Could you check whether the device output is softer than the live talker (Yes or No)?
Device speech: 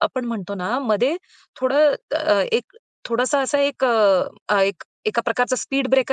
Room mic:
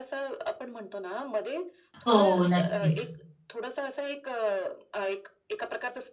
Yes